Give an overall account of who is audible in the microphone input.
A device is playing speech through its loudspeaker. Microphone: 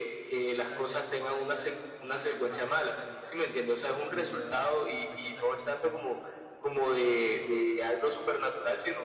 both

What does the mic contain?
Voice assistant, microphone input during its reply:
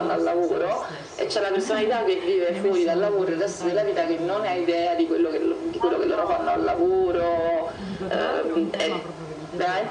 both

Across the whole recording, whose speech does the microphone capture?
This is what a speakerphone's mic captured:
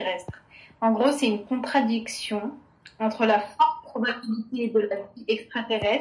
echo only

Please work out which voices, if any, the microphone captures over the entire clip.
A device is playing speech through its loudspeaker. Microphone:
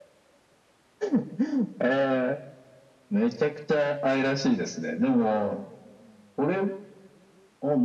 echo only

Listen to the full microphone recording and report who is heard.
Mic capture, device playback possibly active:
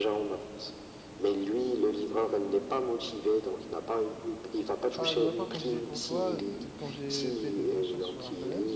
both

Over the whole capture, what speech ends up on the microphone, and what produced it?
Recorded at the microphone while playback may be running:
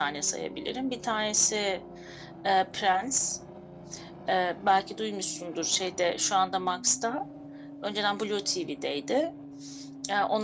echo only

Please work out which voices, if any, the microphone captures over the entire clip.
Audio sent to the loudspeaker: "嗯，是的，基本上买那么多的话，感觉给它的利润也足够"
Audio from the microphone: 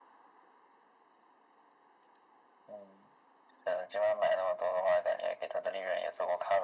echo only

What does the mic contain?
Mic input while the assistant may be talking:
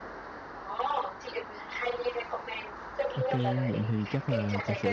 both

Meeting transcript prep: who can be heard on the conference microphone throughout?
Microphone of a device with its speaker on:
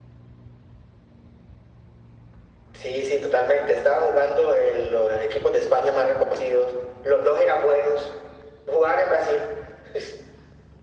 echo only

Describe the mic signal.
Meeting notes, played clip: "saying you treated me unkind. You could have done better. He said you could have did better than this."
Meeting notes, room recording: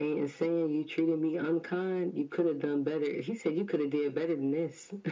echo only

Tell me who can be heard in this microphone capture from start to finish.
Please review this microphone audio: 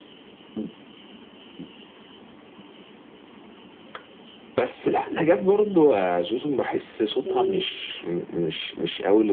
both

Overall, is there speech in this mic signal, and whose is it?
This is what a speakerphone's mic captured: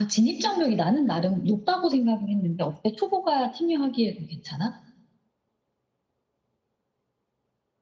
echo only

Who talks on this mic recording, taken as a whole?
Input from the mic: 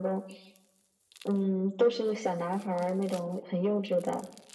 echo only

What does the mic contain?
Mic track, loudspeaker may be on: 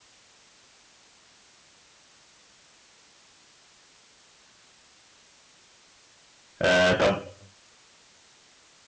user only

